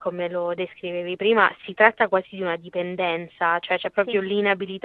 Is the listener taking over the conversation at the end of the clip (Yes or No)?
No